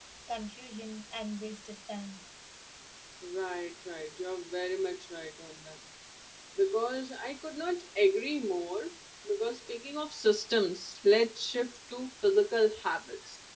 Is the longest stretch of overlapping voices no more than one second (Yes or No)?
Yes